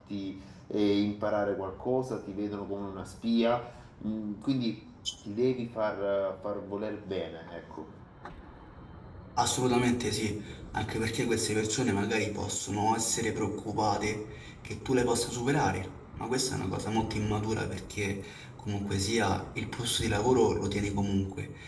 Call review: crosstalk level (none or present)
none